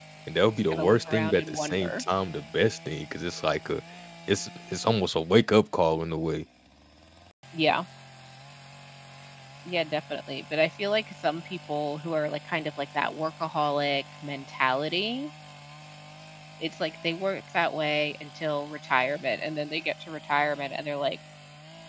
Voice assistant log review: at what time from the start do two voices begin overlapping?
0.7 s

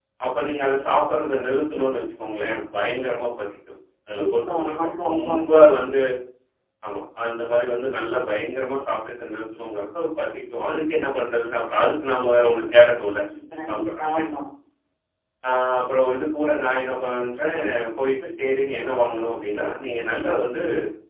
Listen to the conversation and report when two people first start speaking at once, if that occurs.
4.1 s

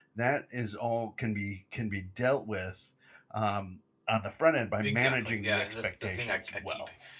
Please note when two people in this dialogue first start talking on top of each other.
4.8 s

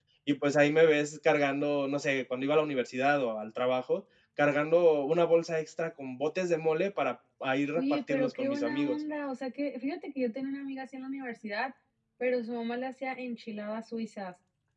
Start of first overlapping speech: 7.8 s

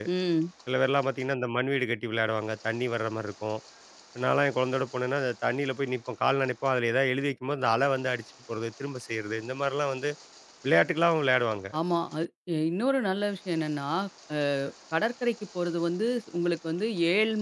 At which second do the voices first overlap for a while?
none

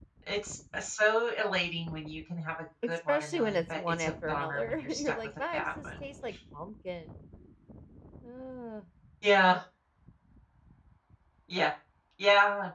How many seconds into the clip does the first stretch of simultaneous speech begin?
2.8 s

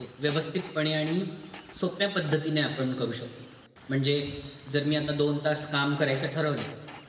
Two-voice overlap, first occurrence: none

